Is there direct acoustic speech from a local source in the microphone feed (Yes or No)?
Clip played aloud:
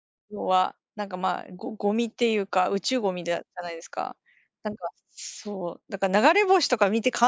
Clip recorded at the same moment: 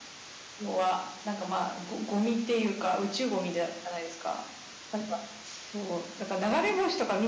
No